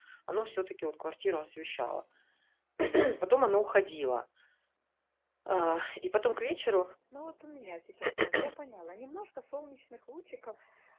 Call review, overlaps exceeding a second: none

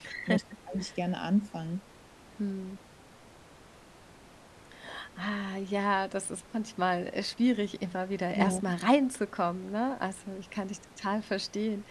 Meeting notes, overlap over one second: none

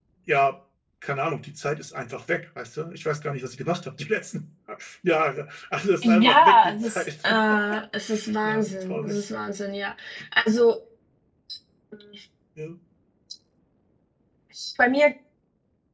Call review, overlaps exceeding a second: present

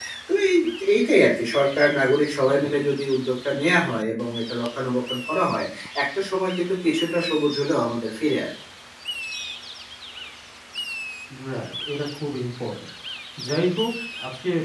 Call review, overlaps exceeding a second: none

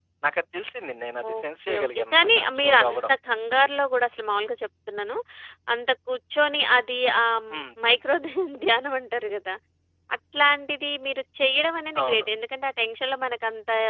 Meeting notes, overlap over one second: present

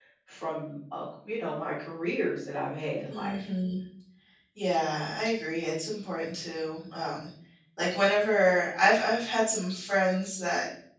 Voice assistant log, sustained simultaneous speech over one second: none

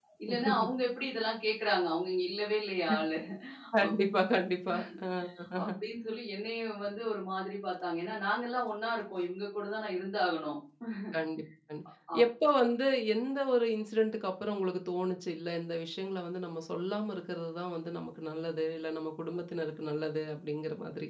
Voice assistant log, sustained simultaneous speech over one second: none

